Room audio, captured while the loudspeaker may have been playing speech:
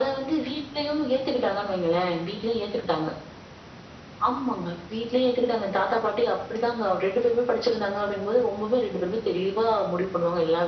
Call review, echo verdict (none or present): present